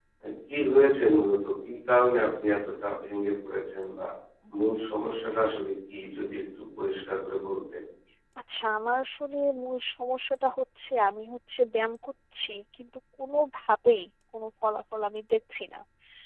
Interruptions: none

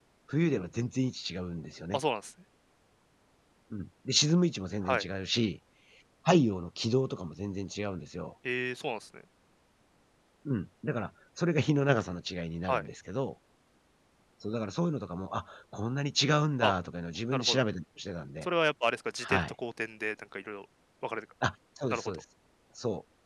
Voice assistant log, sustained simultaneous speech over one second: none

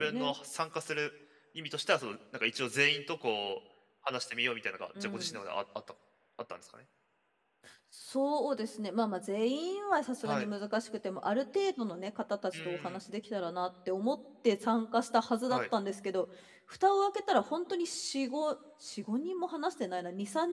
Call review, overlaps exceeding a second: none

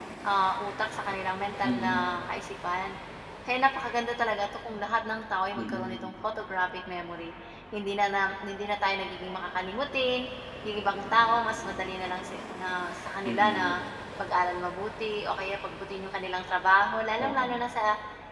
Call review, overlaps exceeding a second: none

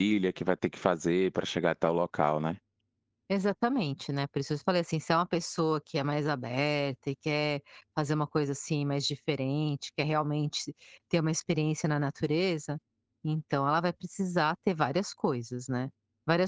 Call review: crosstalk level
none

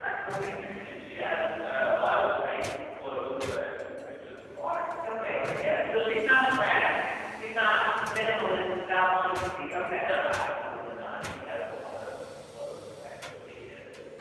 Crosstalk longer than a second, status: none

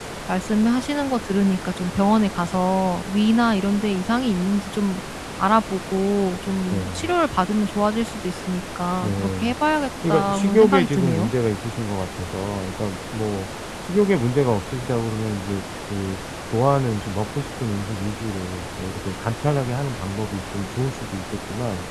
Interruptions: present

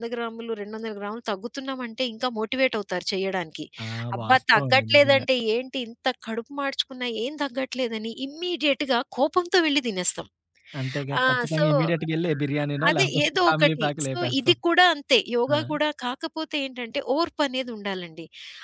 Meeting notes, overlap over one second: present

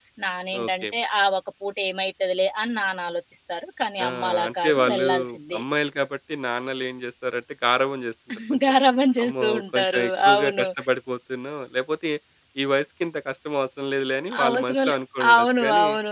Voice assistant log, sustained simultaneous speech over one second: present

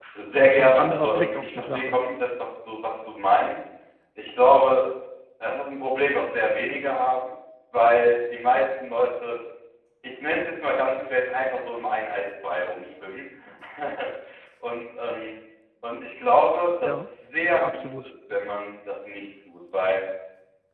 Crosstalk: present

